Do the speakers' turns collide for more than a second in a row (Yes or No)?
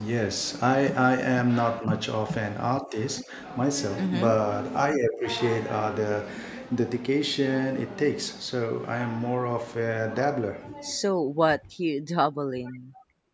No